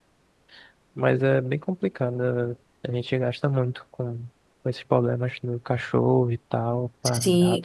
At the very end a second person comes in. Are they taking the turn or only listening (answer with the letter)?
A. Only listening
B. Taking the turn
B